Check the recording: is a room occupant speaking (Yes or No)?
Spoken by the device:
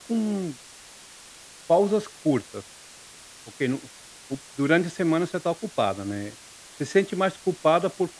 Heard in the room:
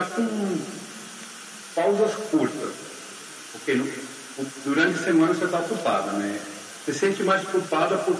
No